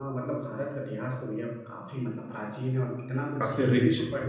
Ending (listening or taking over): listening